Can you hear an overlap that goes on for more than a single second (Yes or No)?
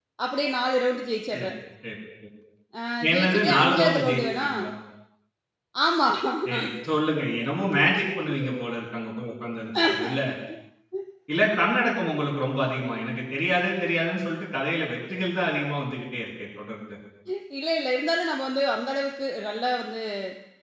Yes